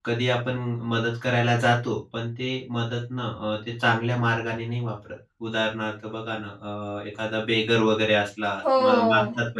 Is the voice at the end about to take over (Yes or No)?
No